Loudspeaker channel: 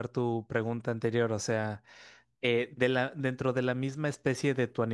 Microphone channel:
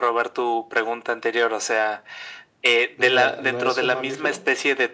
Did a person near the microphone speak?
Yes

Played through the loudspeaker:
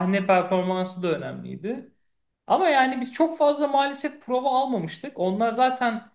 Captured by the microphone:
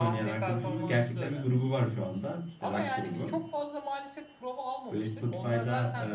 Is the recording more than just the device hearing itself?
Yes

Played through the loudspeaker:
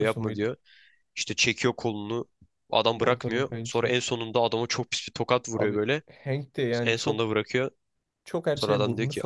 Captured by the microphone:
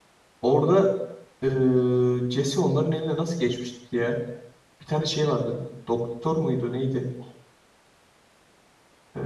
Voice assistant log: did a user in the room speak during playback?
Yes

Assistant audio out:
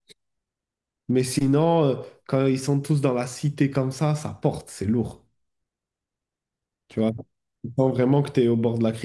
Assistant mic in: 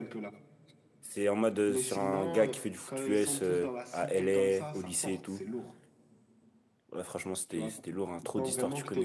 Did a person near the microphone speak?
Yes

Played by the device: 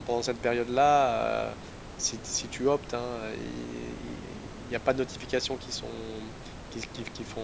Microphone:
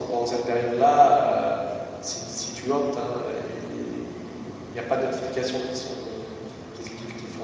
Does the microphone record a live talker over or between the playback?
No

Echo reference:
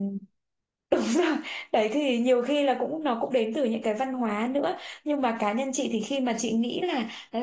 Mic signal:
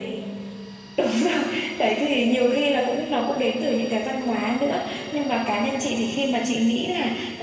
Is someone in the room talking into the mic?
No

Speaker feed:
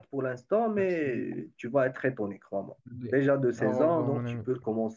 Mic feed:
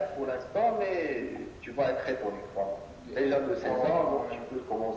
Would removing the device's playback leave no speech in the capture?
Yes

